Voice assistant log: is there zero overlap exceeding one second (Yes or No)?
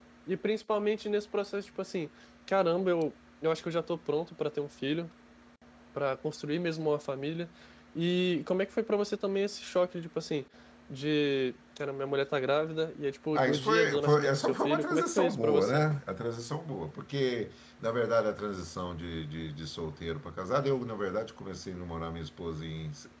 No